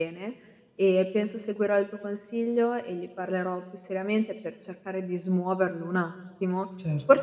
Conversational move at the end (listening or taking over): listening